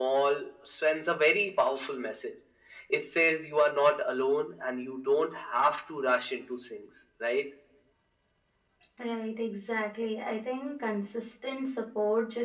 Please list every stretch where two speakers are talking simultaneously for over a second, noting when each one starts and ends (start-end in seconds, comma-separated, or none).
none